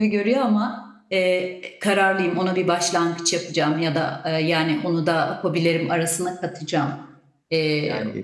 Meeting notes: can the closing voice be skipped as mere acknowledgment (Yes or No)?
Yes